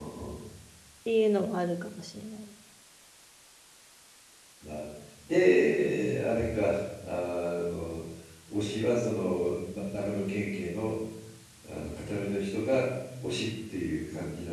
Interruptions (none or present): none